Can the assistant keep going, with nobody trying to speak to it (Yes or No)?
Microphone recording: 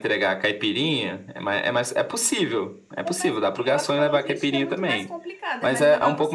No